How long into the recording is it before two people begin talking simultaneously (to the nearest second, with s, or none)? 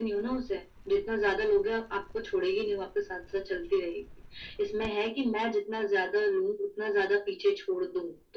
none